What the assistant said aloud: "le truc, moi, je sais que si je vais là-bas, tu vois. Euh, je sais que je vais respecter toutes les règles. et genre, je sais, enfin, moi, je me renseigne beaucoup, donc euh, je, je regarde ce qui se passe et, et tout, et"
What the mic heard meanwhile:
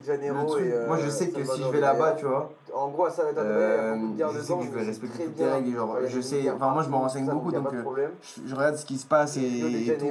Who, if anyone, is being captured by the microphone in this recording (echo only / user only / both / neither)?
both